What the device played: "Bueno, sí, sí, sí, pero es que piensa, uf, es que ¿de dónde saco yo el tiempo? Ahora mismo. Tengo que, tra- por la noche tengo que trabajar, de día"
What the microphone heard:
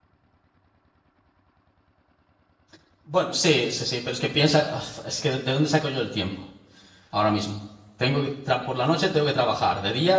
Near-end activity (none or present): none